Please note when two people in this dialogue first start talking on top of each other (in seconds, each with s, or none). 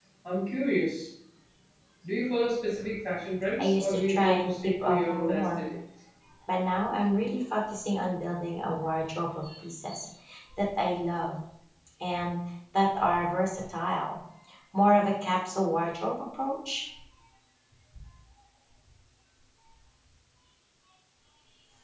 3.6 s